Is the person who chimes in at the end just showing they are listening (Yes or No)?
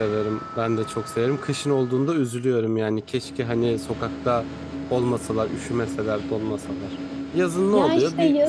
No